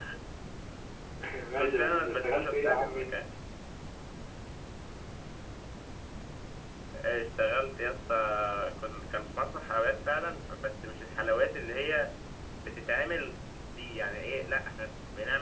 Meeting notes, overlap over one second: present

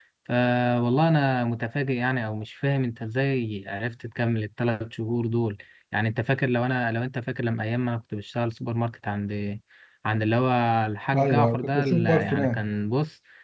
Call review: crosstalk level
present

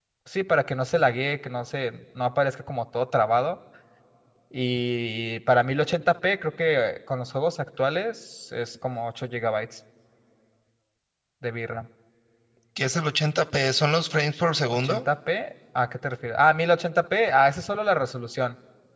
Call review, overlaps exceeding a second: none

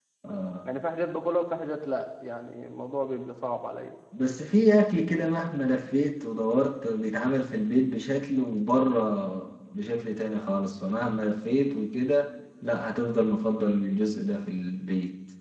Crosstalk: none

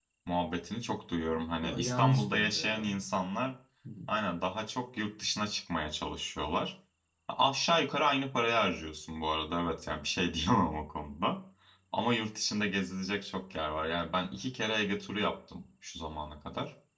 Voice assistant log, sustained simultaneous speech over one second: present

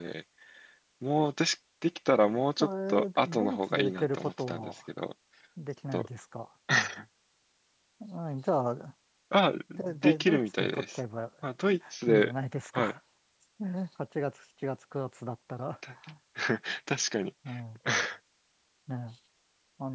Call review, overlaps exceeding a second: present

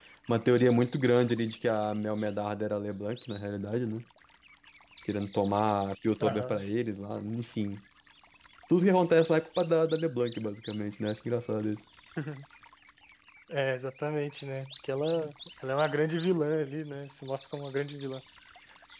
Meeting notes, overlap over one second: none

